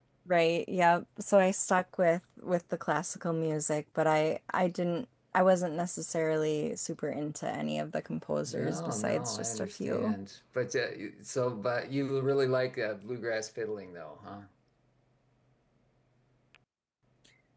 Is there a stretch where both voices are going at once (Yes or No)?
Yes